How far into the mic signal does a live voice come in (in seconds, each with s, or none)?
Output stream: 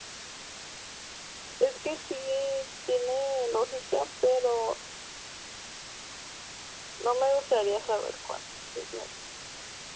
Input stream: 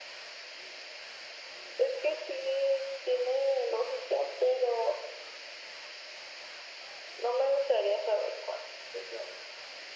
none